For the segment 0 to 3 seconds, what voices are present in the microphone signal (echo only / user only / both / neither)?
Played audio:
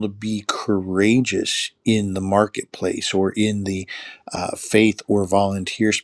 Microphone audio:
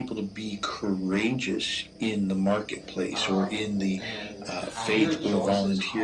echo only